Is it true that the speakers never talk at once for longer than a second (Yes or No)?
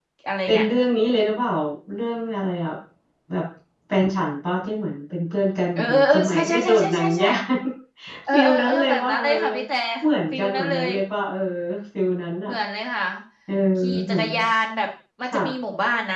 No